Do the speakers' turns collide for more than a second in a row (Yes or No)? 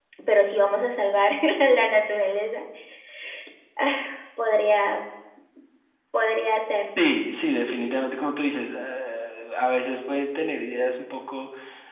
No